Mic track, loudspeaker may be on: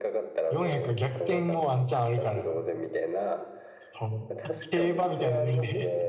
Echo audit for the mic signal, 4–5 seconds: both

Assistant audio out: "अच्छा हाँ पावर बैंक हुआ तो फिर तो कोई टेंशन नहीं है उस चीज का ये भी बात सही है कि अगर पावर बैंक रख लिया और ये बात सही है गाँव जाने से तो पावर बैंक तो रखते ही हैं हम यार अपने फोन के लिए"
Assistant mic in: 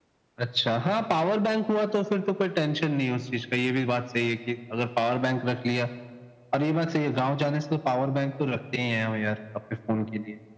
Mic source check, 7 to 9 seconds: echo only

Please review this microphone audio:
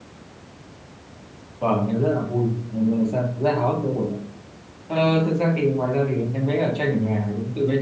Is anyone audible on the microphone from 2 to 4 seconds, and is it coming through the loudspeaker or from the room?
user only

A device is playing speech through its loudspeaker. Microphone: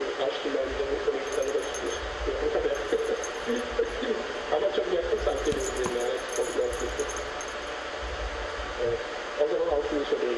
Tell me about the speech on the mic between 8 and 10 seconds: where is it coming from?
echo only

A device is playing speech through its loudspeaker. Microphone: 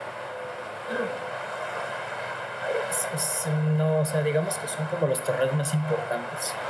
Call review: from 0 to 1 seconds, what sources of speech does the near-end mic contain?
neither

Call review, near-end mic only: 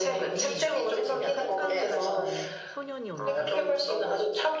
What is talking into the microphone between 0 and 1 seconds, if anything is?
both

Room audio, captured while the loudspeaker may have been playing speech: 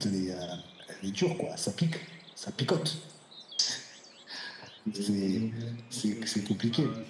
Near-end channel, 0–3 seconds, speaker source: echo only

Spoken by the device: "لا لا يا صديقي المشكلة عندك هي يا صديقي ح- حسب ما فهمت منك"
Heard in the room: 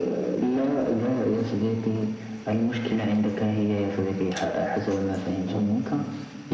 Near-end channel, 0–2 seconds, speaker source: echo only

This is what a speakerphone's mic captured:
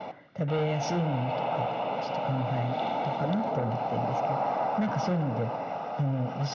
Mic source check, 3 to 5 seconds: echo only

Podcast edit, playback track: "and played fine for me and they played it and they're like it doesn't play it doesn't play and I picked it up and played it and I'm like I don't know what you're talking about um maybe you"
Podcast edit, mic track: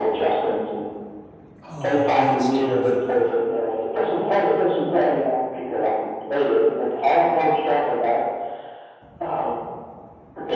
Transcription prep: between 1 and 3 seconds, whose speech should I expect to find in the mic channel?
both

